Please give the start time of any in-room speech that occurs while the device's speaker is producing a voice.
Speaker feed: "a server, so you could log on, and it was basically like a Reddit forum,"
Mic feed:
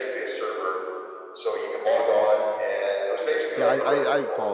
3.5 s

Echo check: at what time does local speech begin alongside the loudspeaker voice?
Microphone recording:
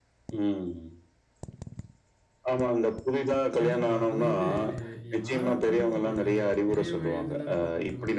3.6 s

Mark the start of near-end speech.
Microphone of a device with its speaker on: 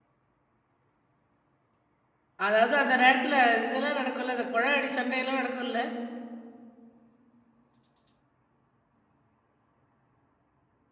2.5 s

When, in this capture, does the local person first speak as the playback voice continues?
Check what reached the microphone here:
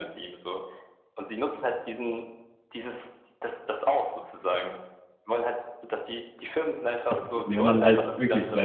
7.1 s

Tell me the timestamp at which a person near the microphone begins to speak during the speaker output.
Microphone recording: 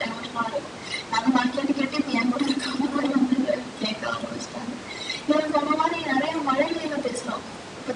none

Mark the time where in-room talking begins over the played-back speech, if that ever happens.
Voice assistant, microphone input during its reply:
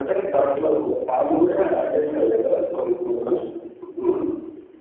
none

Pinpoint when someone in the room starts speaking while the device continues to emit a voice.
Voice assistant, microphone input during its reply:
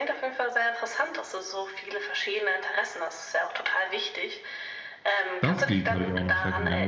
5.4 s

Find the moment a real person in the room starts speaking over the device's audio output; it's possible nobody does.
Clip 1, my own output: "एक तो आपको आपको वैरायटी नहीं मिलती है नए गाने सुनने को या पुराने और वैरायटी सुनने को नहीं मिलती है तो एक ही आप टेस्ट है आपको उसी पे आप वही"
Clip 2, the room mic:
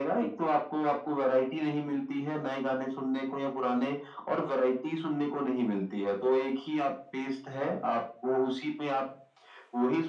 none

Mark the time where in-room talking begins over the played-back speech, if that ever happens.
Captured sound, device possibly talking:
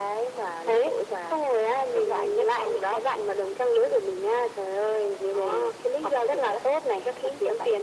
none

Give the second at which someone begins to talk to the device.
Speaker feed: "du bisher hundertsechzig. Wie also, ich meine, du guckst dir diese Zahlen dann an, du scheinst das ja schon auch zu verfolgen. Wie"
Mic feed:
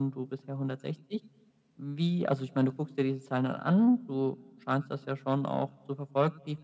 none

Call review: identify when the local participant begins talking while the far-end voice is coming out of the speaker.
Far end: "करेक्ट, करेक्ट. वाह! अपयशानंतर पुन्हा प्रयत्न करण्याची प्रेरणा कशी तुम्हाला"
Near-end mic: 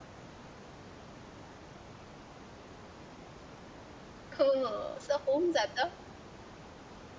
4.3 s

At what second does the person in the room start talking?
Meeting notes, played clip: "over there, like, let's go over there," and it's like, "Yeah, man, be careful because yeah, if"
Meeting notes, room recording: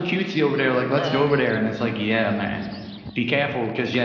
1.0 s

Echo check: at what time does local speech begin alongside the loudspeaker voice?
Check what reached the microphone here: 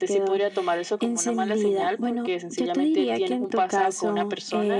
none

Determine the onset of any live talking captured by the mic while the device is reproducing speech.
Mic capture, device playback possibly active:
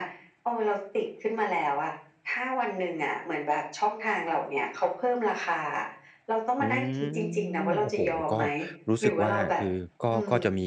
6.6 s

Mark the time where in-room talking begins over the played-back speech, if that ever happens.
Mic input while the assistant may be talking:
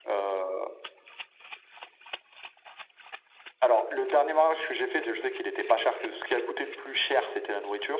none

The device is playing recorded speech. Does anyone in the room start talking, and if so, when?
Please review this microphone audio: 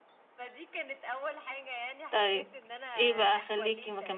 2.1 s

